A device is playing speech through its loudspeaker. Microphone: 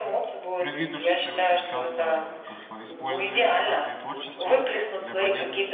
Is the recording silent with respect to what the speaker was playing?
No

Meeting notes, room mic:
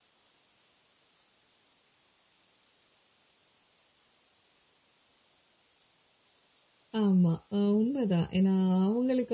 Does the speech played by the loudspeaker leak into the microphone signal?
No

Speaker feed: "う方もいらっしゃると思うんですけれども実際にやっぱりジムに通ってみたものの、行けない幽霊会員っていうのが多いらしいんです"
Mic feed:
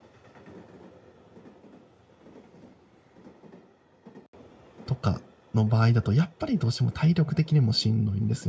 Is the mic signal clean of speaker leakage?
Yes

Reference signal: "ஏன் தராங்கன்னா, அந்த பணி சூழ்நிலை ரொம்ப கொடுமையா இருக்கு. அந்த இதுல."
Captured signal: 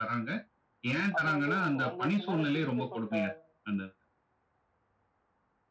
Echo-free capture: No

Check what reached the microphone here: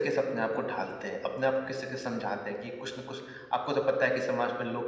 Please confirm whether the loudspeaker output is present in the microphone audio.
Yes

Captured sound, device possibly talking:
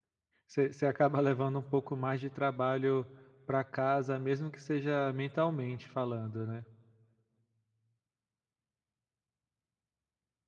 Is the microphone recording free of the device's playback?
Yes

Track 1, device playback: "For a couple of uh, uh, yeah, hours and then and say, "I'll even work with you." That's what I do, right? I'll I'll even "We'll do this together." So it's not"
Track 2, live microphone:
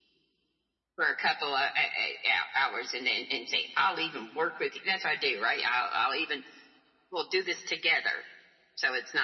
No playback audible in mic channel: No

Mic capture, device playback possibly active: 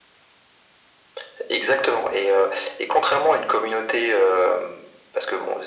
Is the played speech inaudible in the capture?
No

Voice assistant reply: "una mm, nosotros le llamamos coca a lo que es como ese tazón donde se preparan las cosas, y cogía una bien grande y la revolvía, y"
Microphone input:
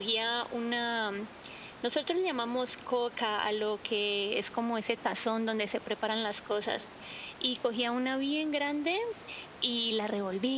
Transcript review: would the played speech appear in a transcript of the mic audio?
Yes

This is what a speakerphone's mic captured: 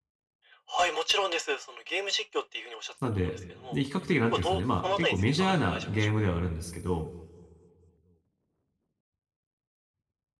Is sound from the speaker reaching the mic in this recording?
Yes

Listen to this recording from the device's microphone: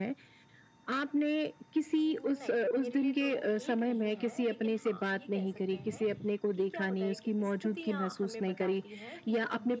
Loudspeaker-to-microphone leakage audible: Yes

